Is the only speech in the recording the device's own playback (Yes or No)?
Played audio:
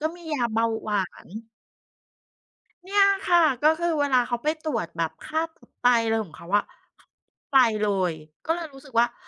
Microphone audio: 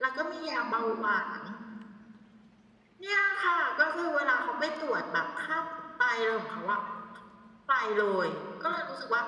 Yes